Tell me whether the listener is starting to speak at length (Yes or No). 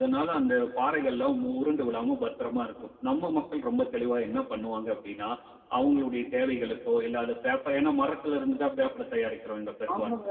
Yes